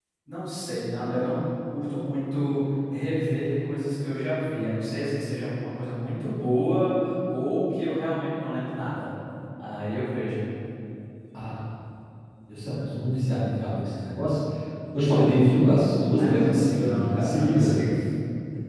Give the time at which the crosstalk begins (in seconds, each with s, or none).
16.2 s